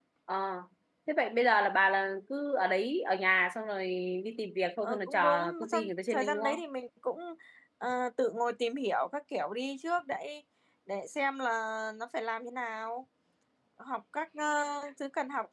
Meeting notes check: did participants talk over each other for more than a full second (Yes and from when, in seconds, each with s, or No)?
Yes, from 4.8 s